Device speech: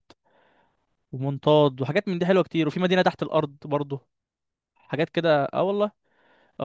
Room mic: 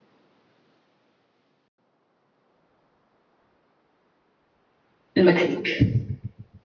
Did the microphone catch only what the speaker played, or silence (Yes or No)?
No